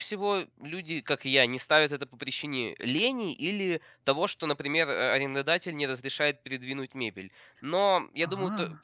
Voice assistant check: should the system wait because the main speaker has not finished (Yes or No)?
Yes